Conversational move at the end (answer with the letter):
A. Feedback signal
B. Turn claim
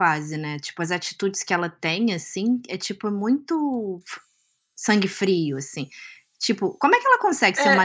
A